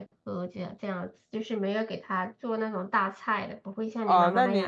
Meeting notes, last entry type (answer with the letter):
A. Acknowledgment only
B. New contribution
B